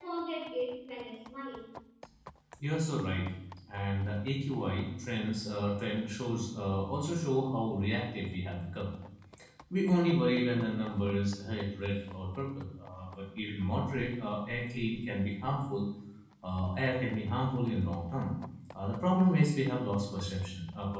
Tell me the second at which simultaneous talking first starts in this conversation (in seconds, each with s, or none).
none